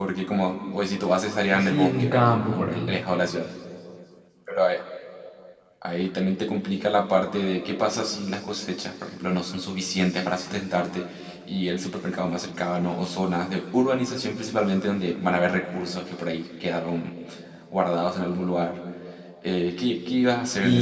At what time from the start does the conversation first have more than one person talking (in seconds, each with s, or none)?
1.5 s